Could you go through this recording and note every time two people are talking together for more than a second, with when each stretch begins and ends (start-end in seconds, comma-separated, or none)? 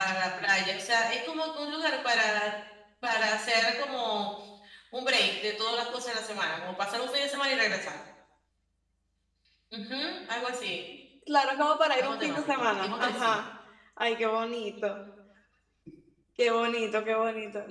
12.0-13.3